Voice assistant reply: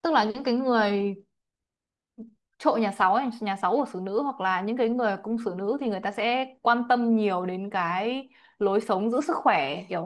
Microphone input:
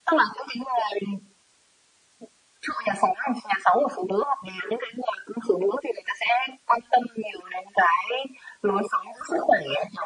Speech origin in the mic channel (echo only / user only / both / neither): echo only